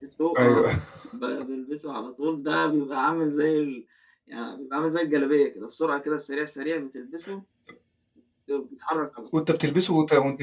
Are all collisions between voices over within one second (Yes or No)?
Yes